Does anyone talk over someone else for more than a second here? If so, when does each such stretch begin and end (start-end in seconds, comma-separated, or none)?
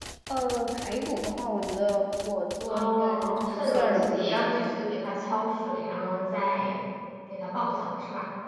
2.7-4.9